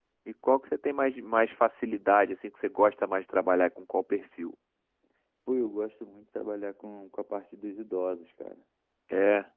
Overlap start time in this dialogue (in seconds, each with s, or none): none